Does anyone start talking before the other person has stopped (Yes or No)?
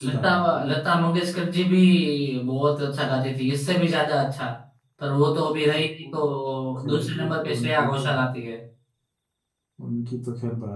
Yes